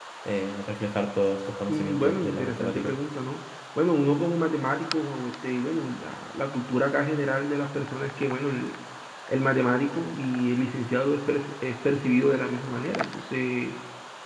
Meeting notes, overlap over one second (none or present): present